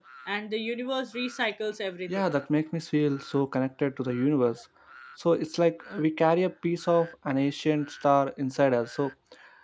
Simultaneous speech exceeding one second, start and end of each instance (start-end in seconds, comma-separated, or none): none